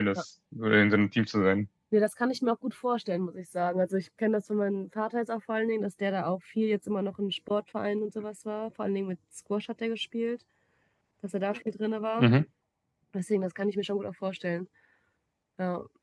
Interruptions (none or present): none